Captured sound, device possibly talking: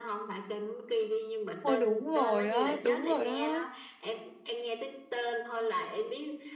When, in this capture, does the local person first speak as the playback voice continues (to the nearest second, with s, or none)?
2 s